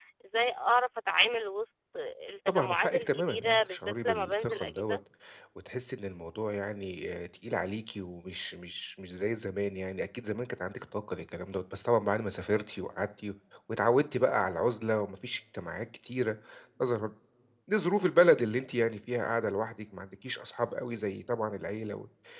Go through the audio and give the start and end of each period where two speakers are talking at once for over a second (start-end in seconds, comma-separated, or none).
2.5-5.0